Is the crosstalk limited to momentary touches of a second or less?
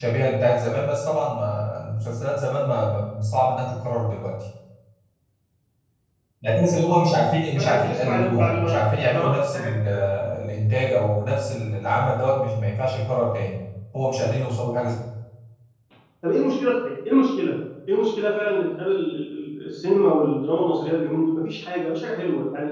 No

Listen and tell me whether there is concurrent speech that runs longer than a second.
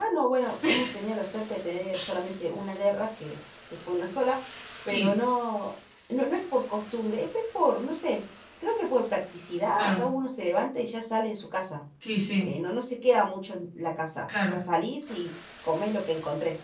No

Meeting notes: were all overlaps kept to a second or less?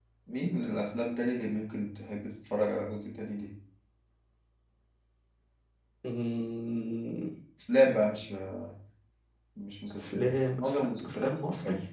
No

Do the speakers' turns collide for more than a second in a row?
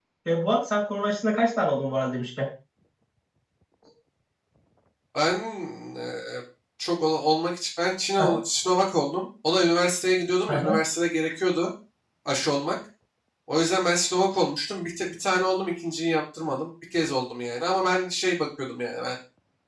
No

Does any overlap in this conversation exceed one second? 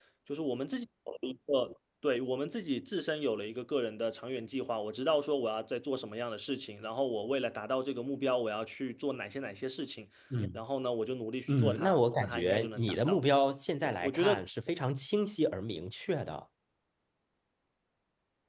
Yes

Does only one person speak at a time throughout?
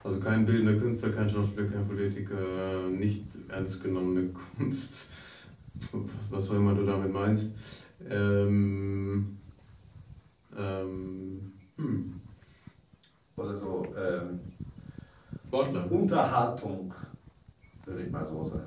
Yes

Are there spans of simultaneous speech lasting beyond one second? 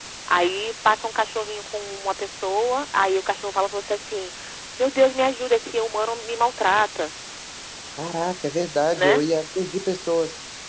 No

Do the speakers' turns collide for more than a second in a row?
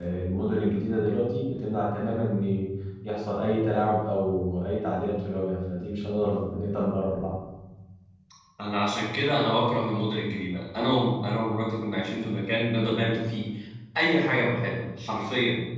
No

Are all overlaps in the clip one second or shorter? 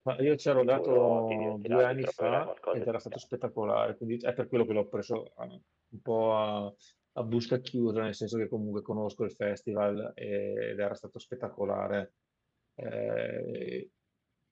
No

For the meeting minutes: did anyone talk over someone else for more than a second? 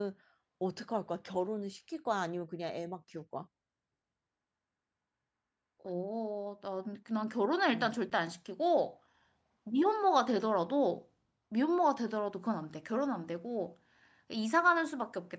No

